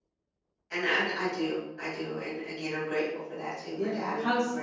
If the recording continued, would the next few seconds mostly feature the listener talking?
Yes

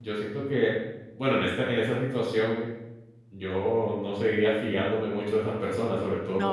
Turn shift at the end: No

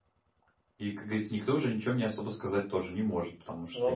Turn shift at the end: No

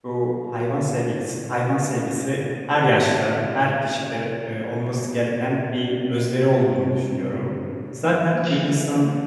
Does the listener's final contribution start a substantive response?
No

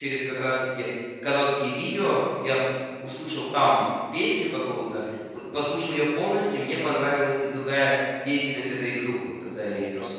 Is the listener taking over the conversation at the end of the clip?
Yes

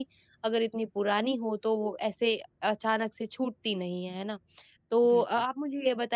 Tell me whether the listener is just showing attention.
Yes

